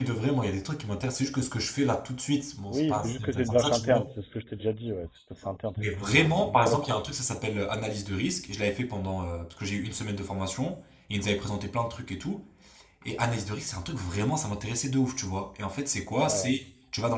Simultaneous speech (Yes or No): Yes